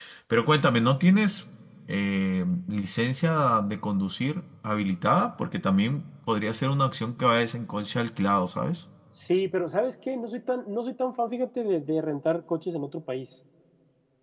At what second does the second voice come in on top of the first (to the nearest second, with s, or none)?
none